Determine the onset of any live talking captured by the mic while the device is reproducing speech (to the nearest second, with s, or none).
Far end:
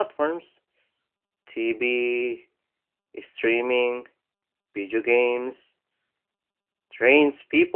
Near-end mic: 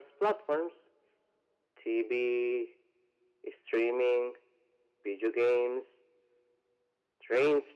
none